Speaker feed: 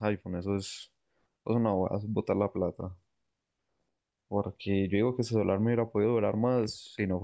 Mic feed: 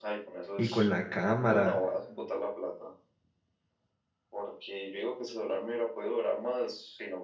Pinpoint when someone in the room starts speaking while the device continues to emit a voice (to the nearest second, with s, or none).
1 s